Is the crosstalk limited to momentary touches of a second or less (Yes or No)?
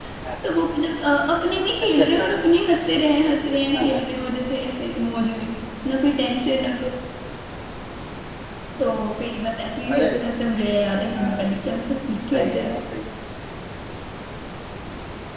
Yes